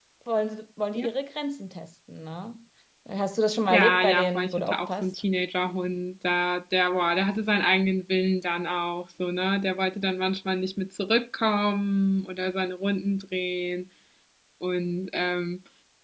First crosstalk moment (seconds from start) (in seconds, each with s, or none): 3.7 s